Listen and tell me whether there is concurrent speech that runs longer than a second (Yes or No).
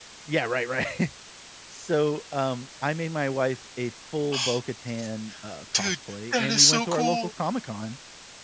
Yes